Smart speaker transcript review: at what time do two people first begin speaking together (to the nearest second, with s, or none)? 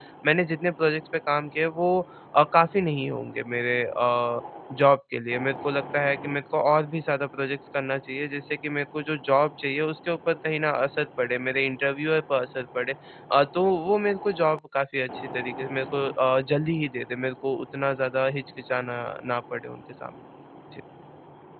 none